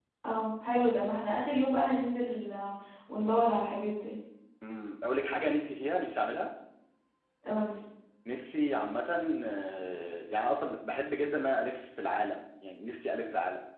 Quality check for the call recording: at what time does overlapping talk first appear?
none

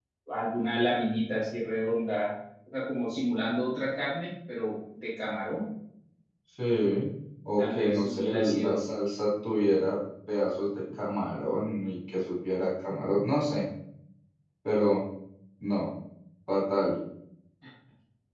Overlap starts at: 7.6 s

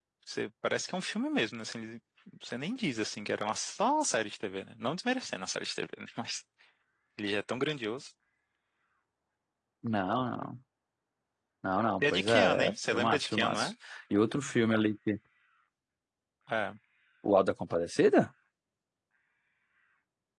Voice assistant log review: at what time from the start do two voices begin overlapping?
12.0 s

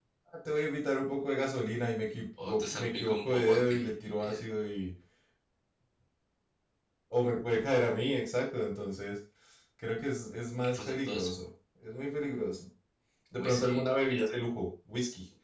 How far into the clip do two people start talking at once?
2.4 s

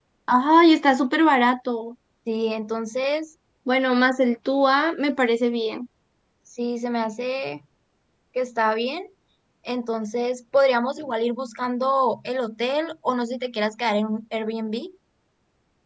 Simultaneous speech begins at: none

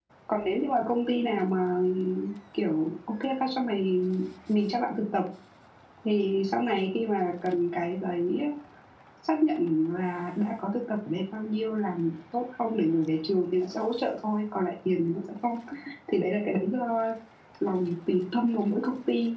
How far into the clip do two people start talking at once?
none

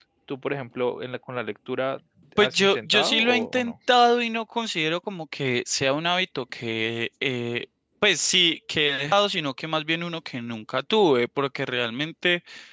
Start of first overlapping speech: 2.4 s

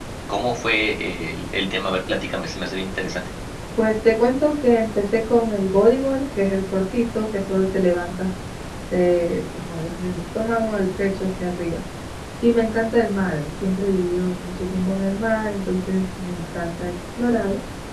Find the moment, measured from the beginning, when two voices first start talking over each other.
none

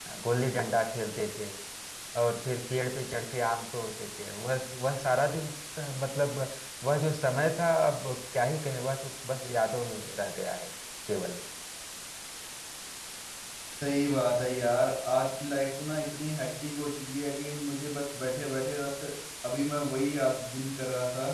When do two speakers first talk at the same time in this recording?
none

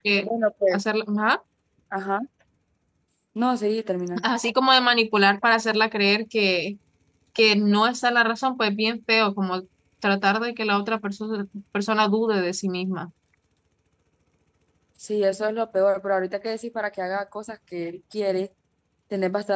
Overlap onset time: none

